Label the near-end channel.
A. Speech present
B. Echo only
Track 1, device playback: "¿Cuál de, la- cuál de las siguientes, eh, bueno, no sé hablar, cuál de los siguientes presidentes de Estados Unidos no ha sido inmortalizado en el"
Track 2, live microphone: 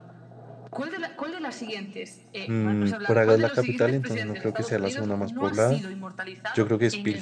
A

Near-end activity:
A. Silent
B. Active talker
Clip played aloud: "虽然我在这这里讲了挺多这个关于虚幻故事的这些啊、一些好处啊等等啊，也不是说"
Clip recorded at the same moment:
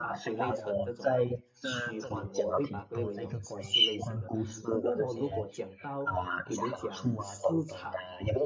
B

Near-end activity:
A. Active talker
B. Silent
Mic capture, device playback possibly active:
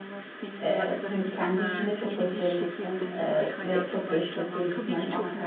A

